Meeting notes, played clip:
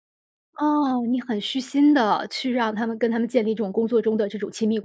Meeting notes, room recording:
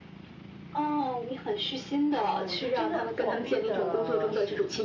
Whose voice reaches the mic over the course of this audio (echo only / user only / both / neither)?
both